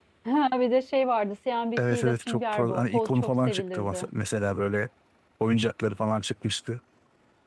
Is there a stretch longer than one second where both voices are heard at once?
Yes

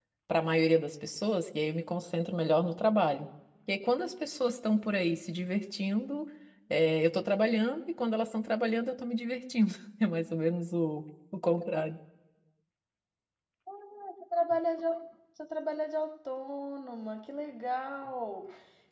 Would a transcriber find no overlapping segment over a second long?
Yes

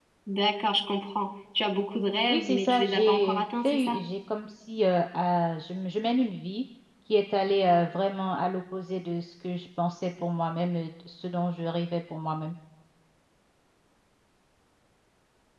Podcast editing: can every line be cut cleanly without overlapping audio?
No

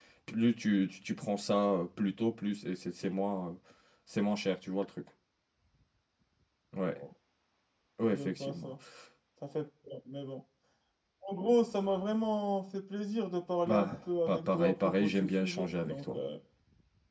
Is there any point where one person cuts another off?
Yes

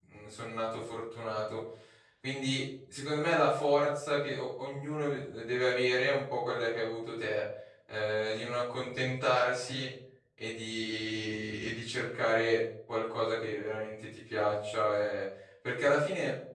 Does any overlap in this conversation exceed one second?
No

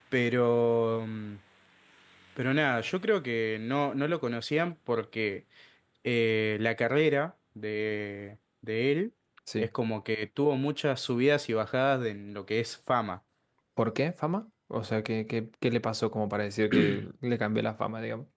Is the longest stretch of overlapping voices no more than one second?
Yes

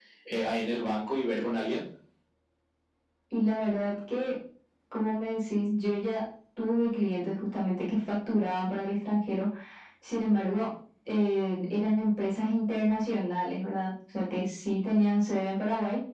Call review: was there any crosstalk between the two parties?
No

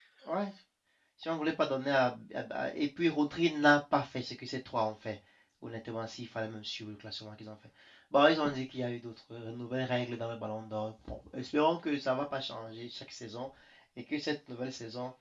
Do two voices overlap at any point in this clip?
No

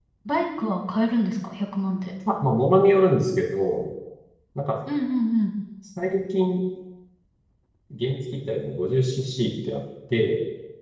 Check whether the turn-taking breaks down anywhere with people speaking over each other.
No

